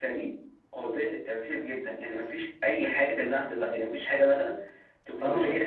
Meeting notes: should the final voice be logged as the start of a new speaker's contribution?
No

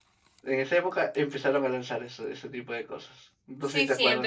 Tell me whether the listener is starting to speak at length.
Yes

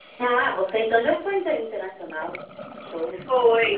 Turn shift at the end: Yes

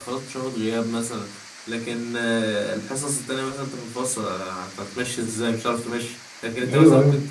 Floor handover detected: No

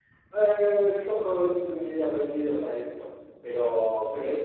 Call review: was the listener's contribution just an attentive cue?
Yes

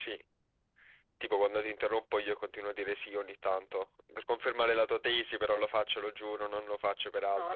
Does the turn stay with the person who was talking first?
No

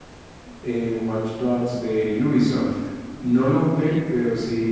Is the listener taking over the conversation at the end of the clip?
No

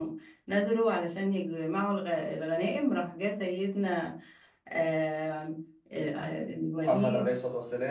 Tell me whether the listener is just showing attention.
No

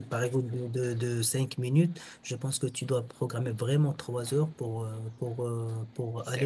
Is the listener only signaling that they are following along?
Yes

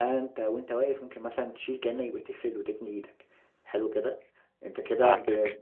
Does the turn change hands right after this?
No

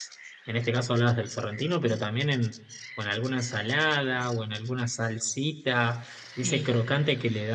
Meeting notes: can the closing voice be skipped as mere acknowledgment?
Yes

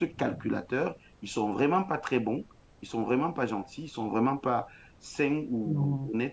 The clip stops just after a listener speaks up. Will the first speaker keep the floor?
Yes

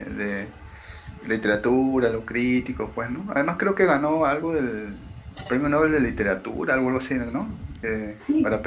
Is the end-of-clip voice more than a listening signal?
Yes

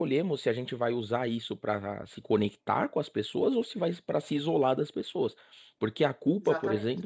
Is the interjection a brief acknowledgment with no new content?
Yes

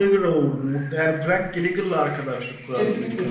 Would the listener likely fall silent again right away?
No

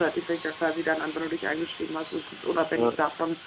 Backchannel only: Yes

